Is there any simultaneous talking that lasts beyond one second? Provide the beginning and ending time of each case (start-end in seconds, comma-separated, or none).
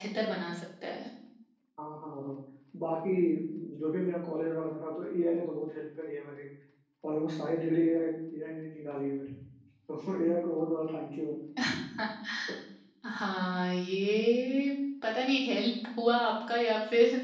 none